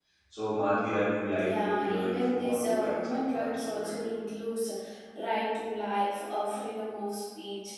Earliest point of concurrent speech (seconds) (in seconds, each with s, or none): 1.4 s